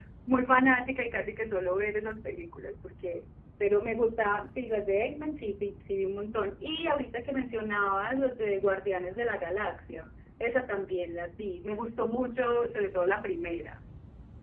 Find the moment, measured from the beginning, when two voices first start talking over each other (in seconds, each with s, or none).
none